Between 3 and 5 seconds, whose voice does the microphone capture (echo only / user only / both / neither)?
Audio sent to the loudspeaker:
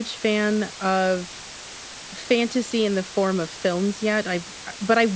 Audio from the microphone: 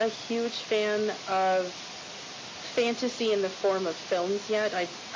echo only